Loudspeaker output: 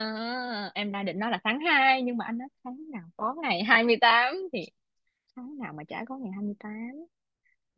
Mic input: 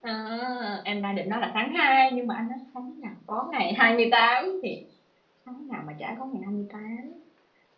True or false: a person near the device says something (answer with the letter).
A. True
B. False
B